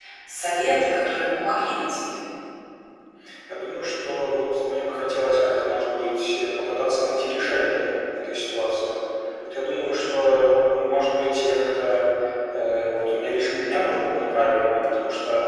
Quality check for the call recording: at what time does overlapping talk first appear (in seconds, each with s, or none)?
none